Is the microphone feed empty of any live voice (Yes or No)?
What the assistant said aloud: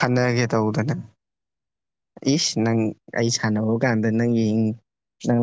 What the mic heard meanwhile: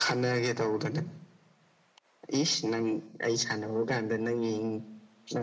Yes